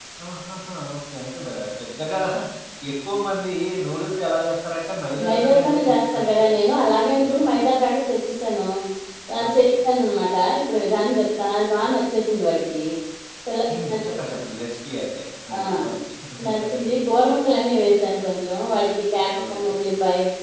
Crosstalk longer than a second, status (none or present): present